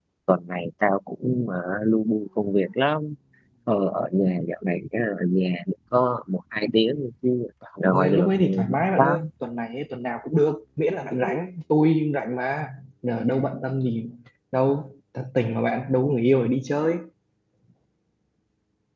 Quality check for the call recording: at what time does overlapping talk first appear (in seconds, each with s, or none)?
7.9 s